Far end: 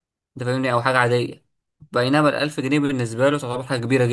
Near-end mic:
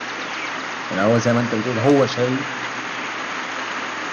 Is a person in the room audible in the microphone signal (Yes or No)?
Yes